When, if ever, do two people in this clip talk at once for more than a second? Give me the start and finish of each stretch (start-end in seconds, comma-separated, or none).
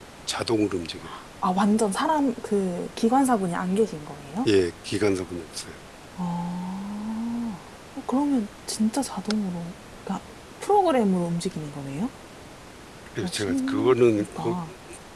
13.2-14.5